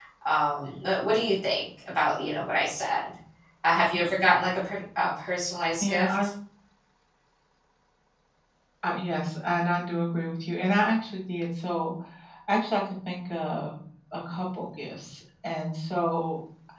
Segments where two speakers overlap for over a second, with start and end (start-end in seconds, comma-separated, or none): none